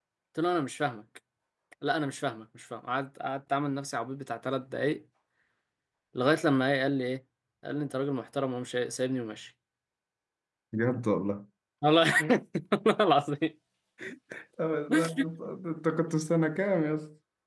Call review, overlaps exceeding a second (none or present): none